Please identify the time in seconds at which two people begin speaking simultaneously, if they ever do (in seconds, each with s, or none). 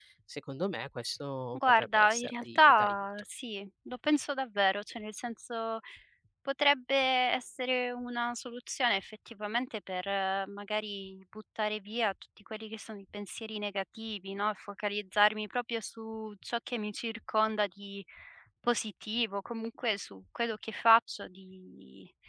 1.5 s